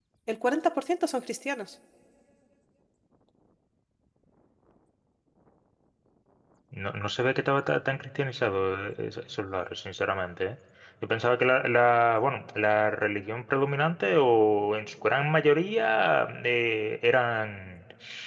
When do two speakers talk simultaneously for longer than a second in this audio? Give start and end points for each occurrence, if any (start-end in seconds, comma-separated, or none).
none